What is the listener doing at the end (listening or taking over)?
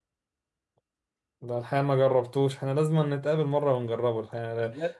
taking over